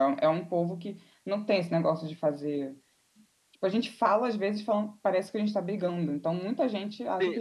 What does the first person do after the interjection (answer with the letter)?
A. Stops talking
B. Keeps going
A